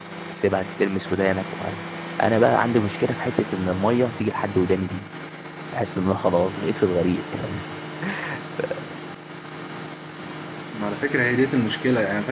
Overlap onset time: none

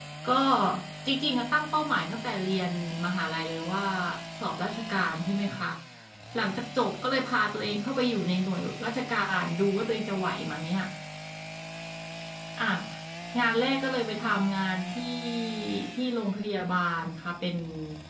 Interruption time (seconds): none

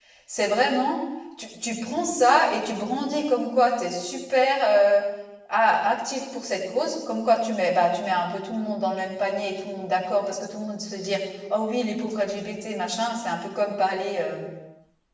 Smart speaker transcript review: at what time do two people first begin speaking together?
none

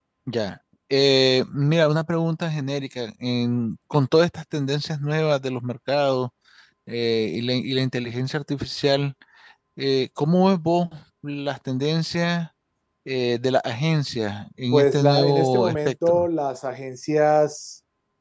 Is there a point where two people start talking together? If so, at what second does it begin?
14.7 s

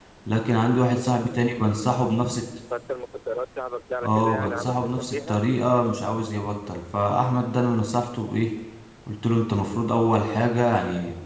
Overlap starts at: 4.0 s

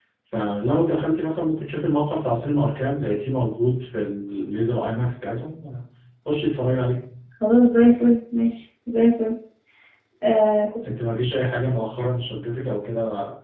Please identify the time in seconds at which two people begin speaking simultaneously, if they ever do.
none

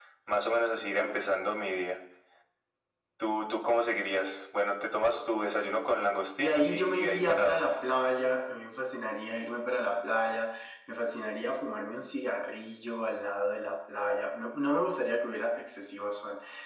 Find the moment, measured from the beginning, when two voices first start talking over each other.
6.4 s

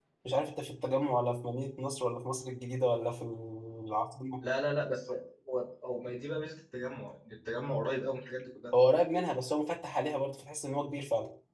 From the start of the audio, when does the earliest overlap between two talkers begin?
none

